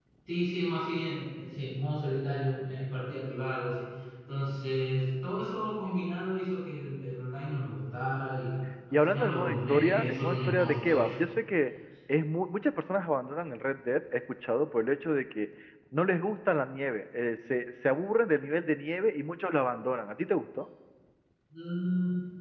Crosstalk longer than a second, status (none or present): present